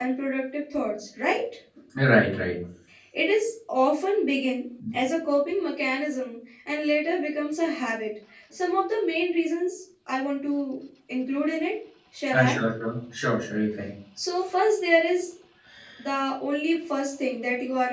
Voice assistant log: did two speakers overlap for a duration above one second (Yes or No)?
No